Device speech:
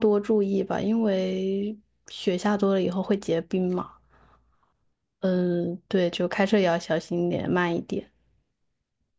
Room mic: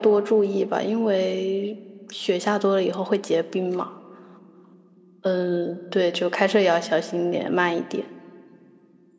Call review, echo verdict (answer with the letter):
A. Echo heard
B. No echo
A